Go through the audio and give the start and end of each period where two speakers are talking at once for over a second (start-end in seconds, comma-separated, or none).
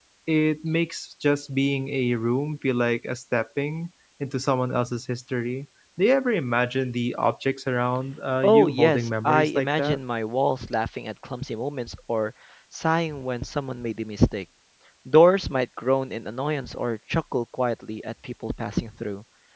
8.4-10.0